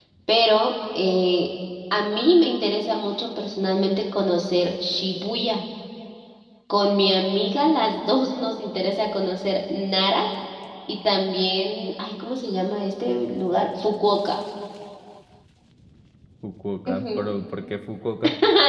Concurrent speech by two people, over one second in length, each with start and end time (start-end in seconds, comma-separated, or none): none